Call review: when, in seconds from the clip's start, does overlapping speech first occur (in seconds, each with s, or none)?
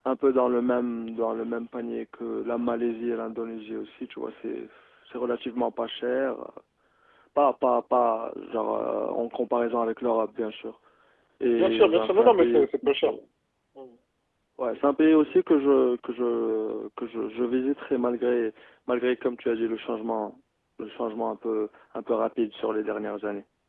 11.6 s